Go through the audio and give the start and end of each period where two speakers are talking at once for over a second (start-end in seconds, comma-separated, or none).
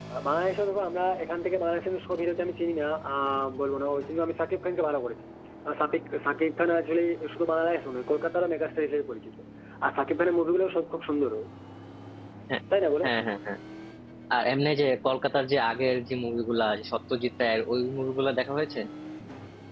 none